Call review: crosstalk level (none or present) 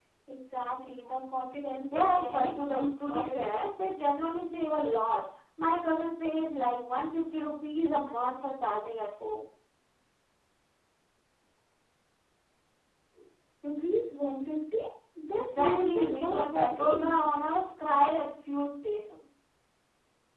present